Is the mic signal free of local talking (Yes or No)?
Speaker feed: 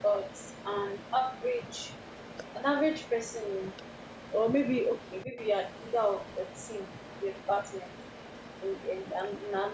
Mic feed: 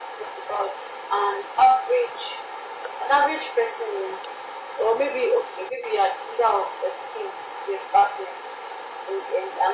Yes